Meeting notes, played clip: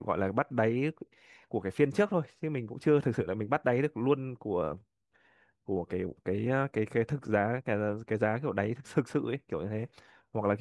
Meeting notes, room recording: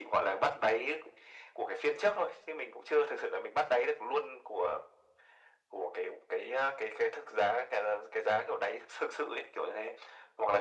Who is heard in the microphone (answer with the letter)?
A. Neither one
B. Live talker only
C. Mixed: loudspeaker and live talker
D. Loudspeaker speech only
D